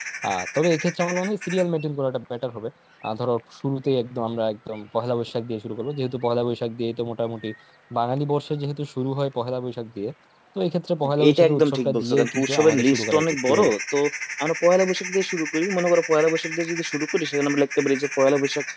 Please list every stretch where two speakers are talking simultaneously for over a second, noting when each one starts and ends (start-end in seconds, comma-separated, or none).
11.3-13.7